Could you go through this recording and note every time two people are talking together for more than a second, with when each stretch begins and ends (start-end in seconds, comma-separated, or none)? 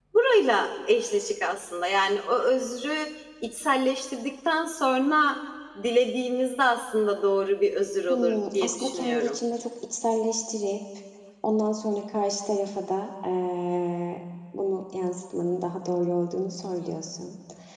8.1-9.4